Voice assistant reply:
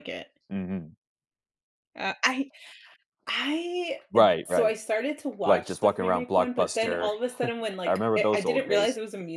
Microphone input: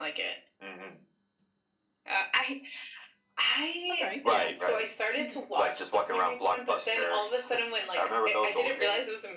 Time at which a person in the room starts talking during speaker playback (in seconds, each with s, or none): 3.9 s